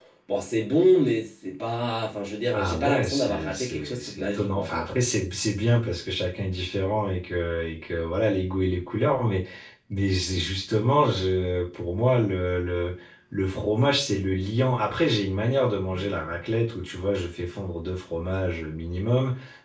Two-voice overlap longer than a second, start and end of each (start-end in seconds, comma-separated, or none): 2.6-4.8